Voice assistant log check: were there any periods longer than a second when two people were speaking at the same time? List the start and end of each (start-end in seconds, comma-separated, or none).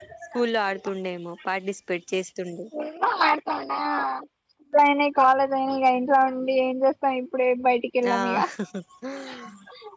none